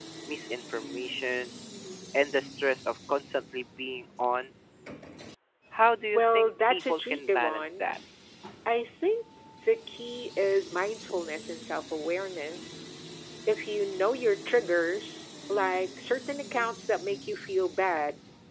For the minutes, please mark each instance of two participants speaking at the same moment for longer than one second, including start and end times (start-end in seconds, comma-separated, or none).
6.1-7.9